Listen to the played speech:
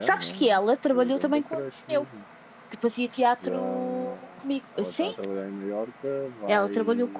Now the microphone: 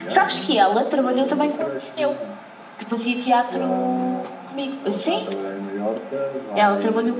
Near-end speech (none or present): none